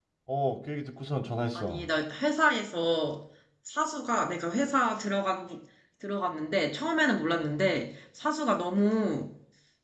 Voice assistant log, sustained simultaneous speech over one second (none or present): none